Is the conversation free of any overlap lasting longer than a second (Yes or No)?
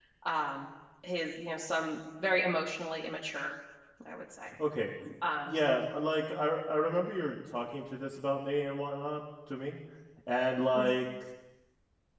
Yes